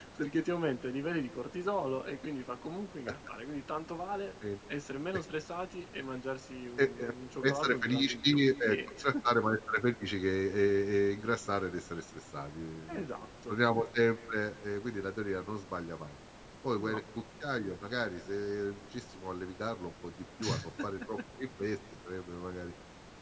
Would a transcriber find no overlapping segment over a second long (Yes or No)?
No